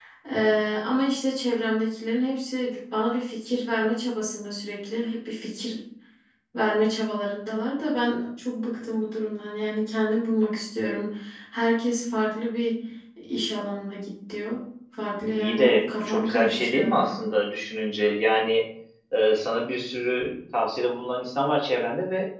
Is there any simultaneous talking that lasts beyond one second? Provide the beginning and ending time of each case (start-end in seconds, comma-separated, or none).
15.4-17.1